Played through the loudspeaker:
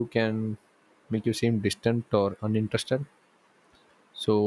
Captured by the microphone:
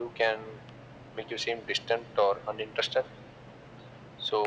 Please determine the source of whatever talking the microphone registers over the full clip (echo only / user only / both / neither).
echo only